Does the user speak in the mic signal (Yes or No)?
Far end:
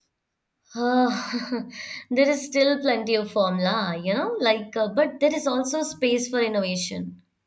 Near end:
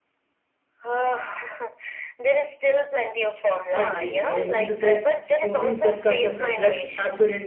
Yes